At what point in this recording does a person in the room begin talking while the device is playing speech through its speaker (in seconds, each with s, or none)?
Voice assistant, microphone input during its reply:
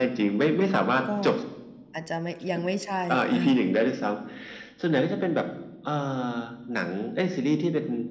1.1 s